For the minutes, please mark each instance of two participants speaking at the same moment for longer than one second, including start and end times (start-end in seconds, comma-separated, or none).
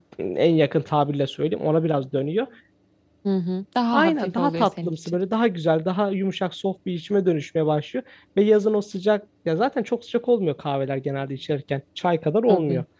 3.9-5.2